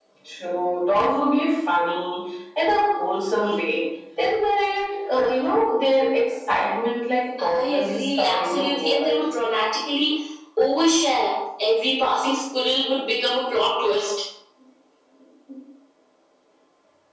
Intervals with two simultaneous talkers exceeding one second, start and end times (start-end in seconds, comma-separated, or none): 7.4-9.2